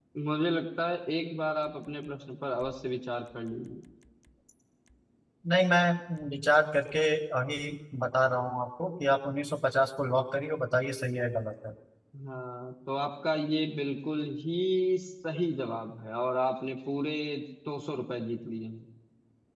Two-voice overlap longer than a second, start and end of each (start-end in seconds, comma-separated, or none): none